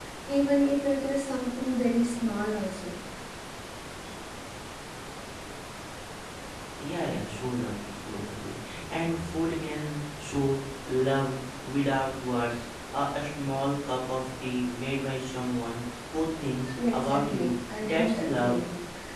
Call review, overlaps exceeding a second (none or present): present